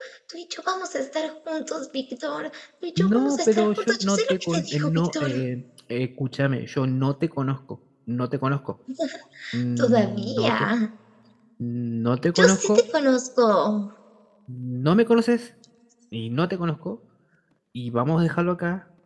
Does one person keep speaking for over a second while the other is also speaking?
Yes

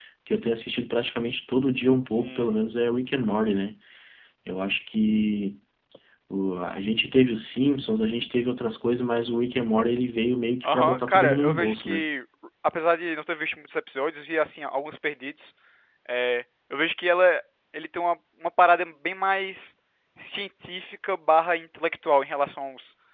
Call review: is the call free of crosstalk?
No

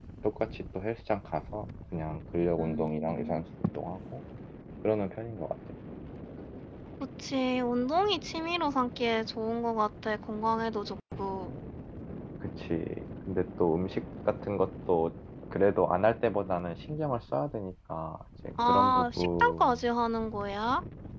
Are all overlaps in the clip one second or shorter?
No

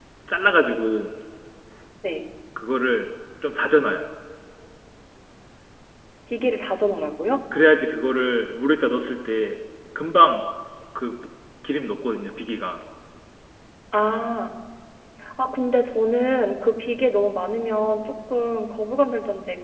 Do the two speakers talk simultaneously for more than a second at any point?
No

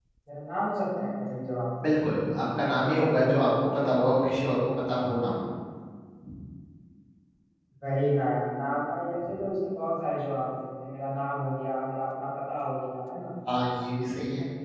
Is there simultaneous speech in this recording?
No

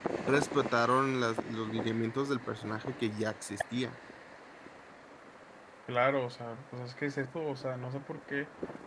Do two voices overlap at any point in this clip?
No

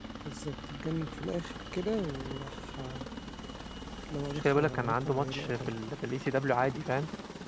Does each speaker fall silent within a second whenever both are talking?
No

